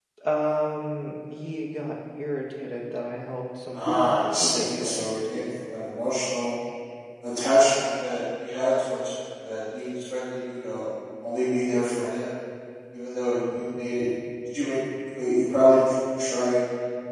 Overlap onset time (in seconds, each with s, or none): 3.7 s